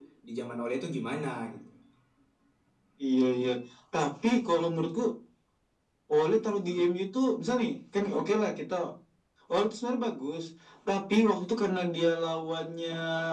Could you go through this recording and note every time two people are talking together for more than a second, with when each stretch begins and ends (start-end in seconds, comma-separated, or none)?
none